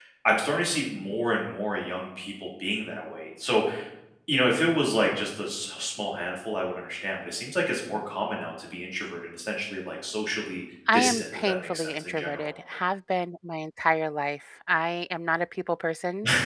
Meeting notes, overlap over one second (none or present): present